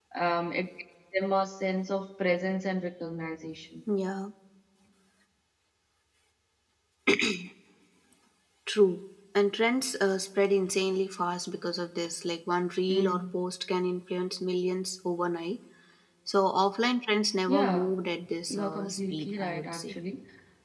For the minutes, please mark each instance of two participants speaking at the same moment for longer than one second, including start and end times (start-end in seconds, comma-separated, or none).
18.5-20.0